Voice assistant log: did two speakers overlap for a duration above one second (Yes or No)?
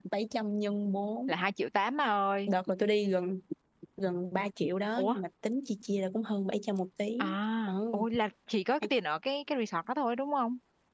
No